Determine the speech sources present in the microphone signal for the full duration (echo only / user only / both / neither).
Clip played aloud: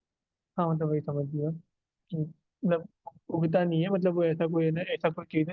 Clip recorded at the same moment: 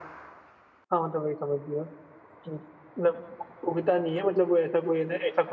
echo only